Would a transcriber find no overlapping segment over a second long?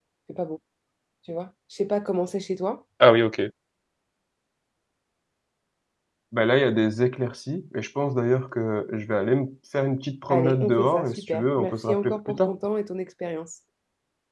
No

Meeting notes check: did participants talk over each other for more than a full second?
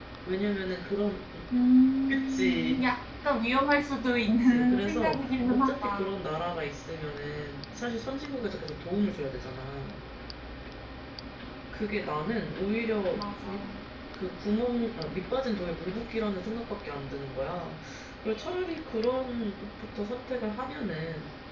Yes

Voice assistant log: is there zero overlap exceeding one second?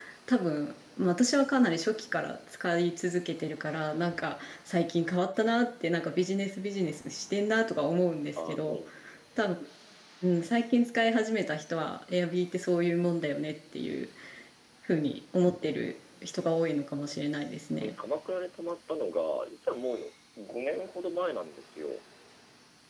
Yes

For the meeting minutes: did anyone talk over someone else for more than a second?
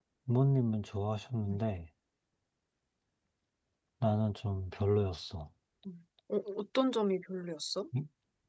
No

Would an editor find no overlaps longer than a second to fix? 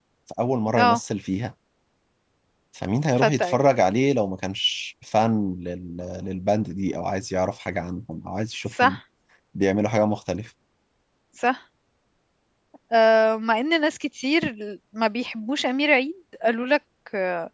Yes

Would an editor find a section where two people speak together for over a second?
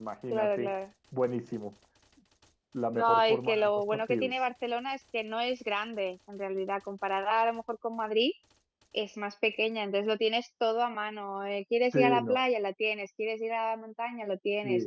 Yes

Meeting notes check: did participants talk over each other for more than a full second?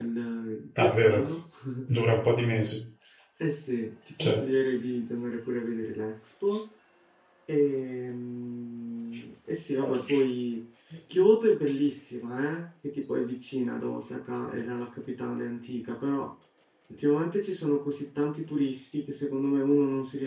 No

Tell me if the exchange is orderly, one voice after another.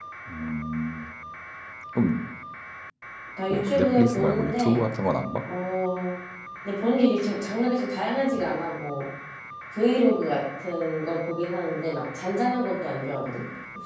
No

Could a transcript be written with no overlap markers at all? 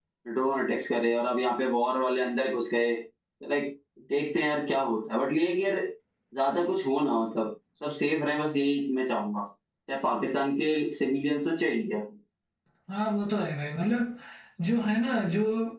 Yes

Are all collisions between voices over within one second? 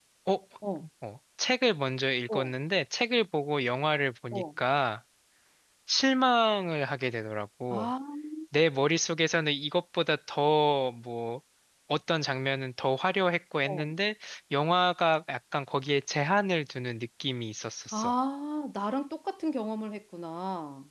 Yes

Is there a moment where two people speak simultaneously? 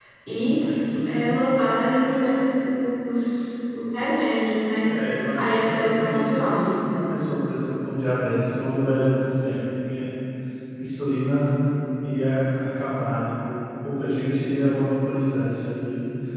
Yes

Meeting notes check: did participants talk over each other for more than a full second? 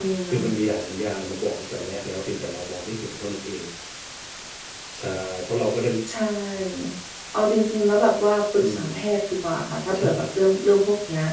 No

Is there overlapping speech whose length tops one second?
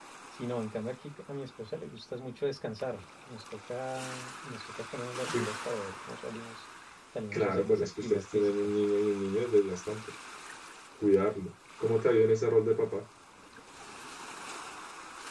Yes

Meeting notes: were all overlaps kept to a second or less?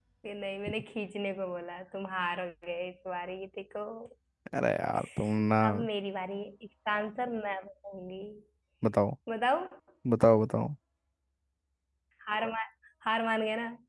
Yes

